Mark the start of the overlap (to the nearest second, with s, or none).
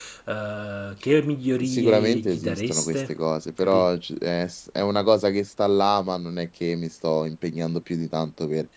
2 s